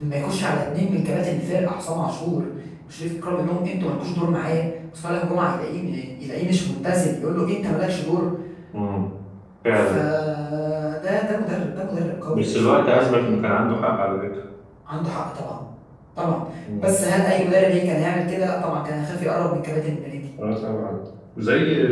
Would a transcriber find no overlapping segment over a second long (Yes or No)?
Yes